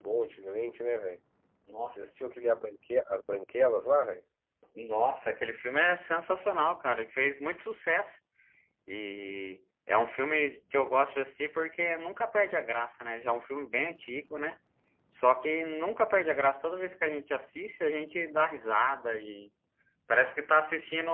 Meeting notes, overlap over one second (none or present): none